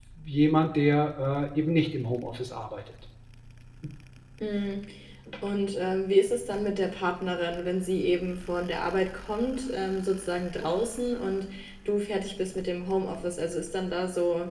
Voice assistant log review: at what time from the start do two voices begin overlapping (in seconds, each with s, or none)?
none